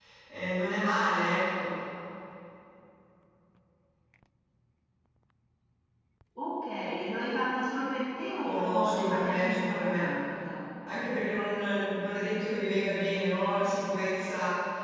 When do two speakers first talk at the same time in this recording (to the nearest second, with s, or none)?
8 s